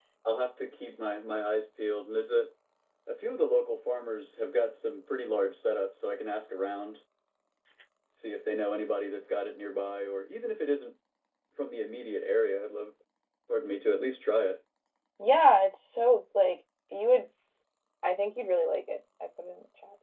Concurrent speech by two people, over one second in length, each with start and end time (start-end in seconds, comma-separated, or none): none